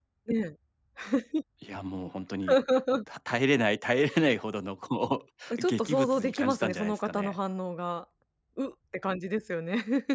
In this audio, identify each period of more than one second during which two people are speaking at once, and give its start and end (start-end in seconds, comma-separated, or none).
5.6-7.4